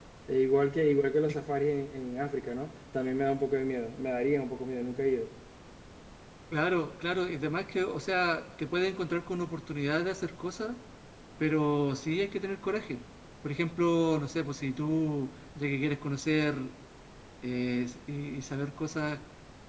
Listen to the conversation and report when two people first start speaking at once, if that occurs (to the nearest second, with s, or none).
none